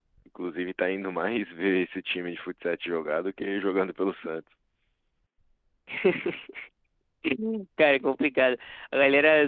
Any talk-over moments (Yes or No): No